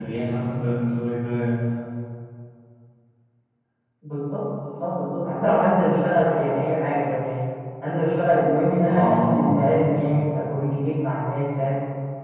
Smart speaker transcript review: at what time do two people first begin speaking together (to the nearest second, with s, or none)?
9 s